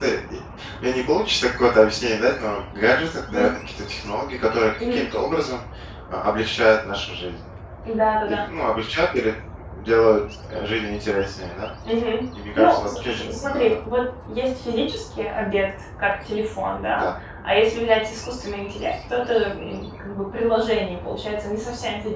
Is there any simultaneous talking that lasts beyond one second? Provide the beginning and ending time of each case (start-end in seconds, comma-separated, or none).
12.5-13.8